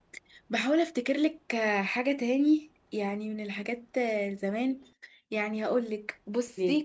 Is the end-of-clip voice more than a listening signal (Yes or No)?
No